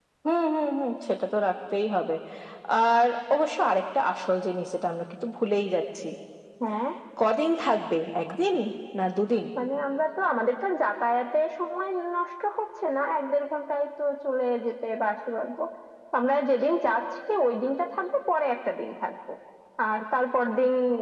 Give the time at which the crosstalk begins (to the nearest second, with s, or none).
none